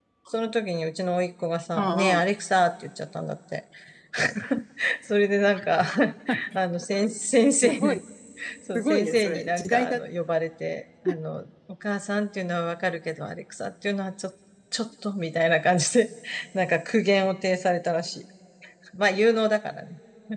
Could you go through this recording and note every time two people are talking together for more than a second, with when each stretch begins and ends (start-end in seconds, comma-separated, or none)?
8.8-10.0